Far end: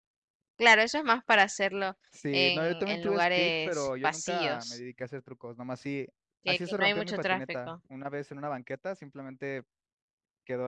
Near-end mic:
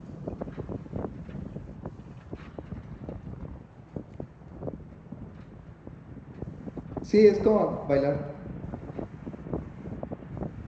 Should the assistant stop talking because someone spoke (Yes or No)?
Yes